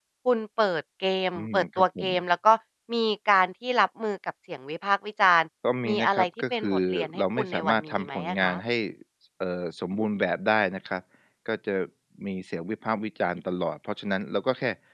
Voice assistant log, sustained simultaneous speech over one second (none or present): present